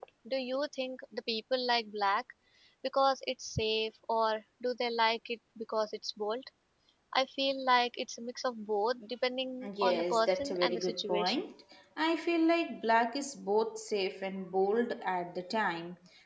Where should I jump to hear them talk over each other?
9.6 s

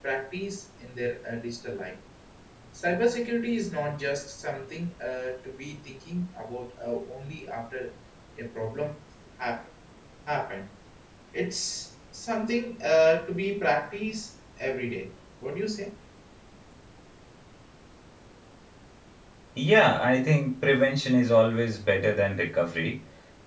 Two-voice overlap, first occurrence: none

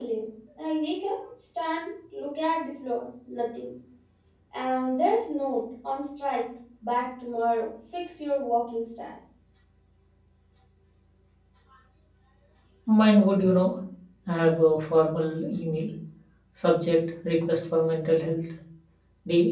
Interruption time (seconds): none

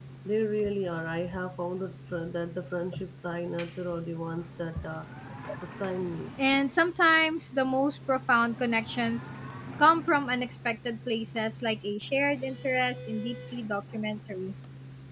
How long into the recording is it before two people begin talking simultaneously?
none

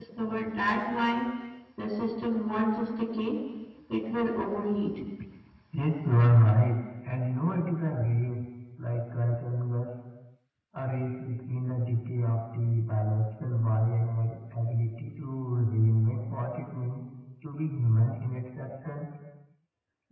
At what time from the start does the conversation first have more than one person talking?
none

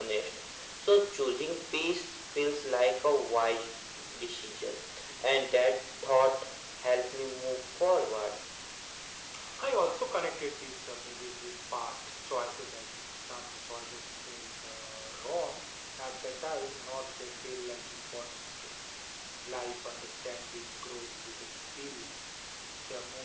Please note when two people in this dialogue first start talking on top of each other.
none

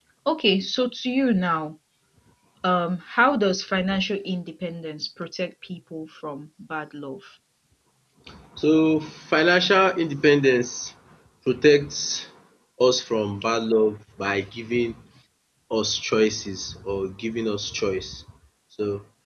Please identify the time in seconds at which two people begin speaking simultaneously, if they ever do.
none

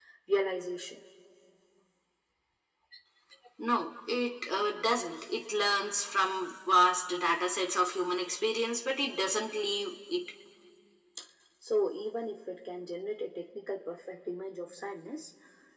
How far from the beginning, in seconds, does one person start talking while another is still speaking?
none

